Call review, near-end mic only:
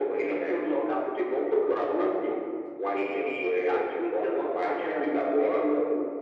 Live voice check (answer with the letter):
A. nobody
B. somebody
A